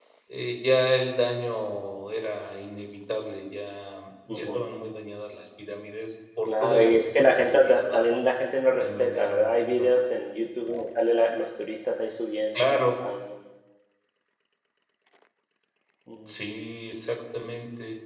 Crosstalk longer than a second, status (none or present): present